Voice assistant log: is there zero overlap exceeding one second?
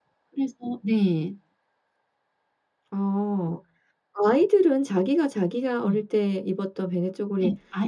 Yes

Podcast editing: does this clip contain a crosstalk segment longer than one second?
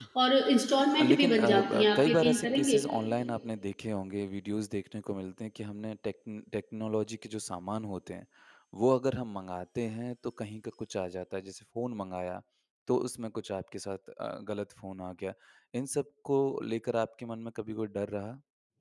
Yes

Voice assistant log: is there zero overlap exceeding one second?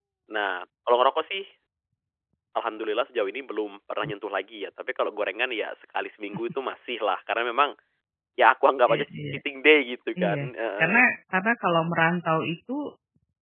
Yes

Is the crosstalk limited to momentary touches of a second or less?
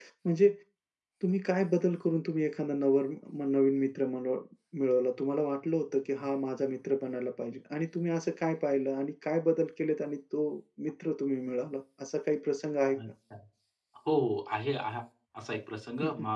Yes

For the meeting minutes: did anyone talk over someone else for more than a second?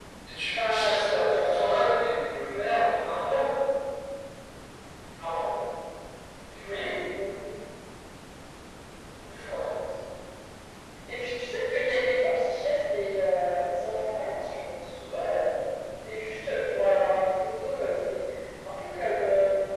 Yes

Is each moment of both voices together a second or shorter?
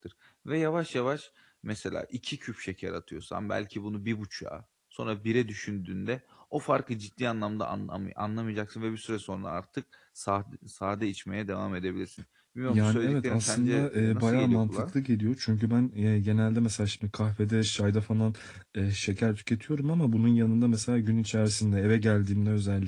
No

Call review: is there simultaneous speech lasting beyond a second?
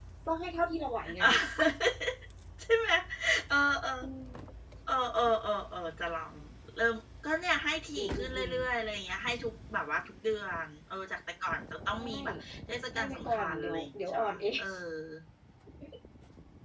Yes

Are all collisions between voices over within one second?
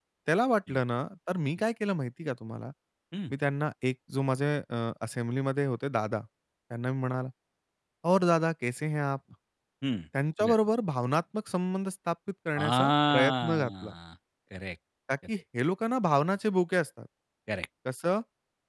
No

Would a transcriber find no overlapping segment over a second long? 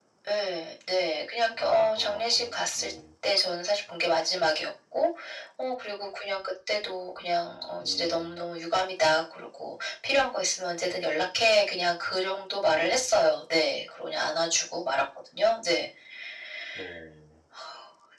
No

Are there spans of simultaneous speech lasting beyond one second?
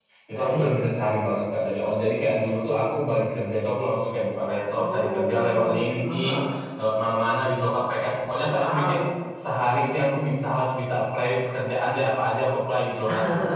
Yes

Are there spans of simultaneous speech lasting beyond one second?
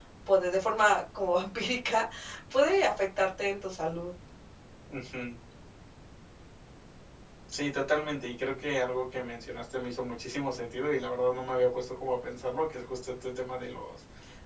No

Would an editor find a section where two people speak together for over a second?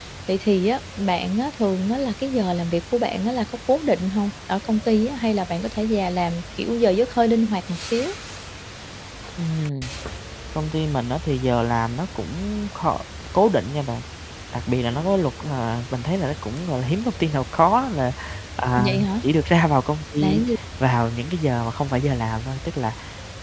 No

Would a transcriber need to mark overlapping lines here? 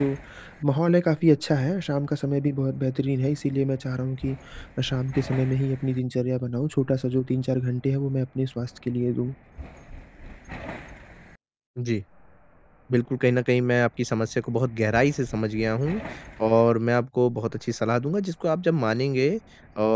No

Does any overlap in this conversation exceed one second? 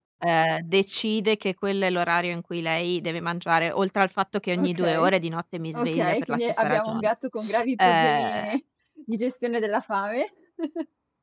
Yes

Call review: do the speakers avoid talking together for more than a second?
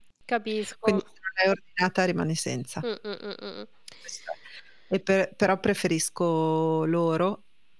Yes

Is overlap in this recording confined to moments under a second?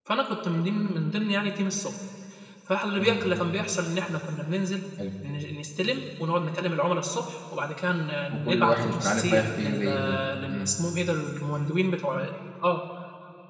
No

